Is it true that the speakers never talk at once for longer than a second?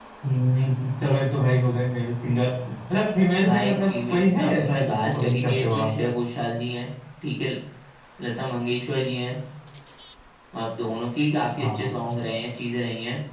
No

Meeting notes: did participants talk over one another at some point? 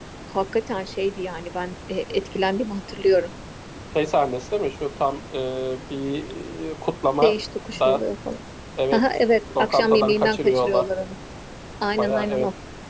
Yes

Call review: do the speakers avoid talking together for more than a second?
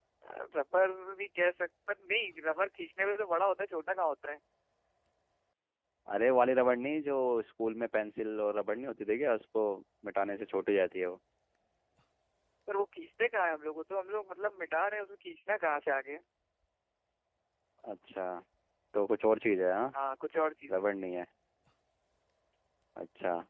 Yes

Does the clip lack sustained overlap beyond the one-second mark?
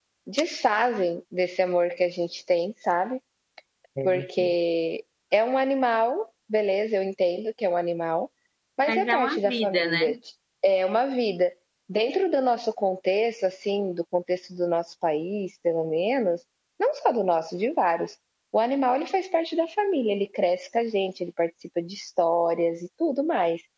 No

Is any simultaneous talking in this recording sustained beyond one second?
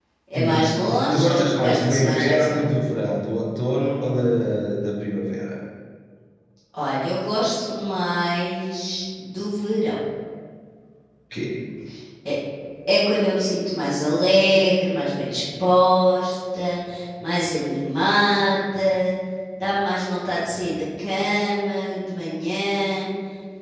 Yes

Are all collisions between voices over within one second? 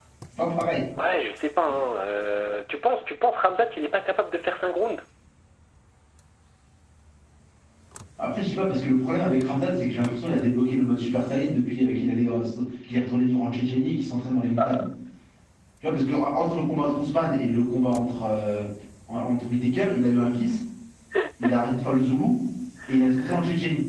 Yes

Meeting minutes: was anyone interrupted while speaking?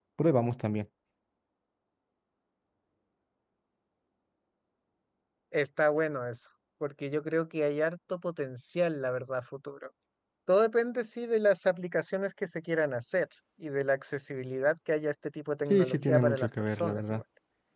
Yes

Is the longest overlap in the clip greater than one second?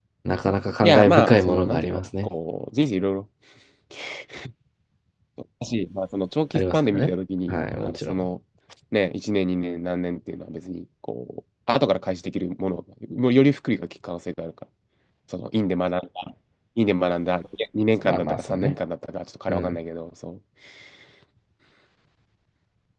Yes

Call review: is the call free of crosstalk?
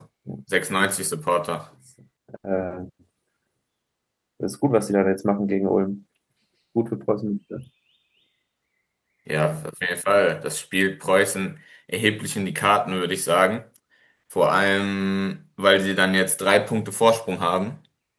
Yes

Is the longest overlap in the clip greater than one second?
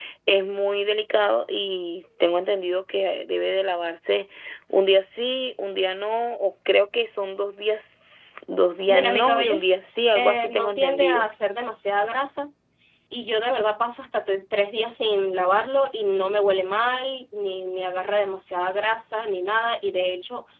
Yes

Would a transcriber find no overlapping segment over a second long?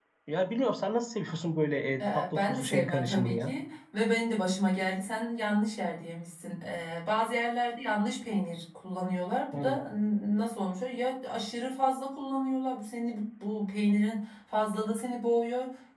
No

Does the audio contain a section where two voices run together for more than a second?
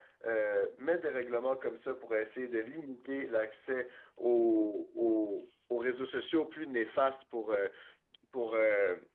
No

